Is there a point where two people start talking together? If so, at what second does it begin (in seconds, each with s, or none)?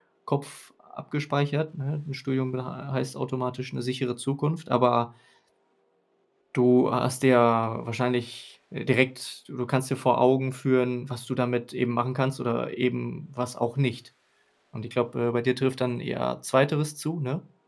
none